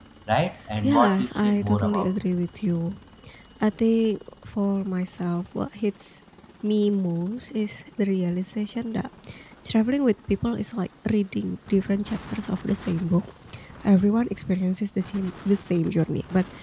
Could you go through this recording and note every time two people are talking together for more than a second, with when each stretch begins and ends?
0.8-2.1

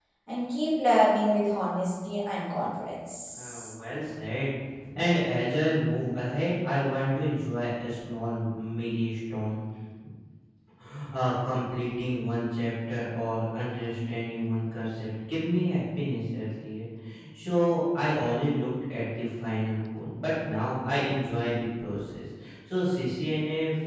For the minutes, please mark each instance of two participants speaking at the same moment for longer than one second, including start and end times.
none

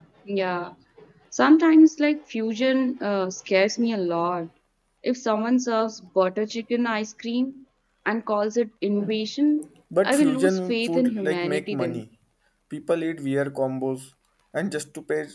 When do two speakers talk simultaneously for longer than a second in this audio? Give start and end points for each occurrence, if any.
10.0-12.0

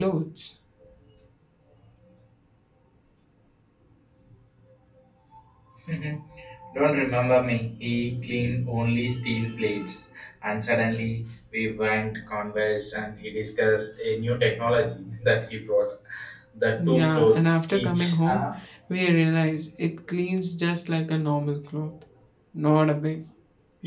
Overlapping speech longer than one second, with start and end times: 16.8-18.4

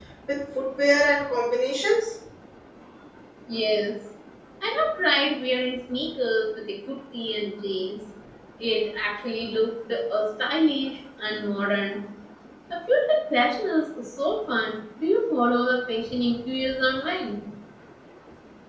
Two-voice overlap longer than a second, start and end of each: none

